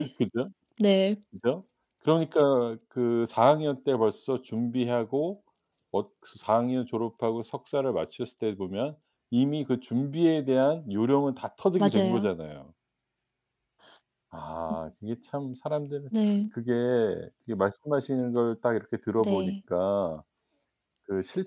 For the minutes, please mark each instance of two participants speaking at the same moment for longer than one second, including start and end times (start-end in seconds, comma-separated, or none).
none